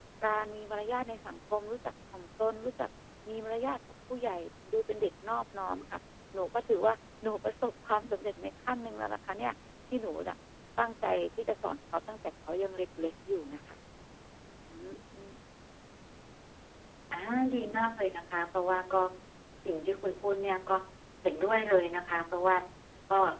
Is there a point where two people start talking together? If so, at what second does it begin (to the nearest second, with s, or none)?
none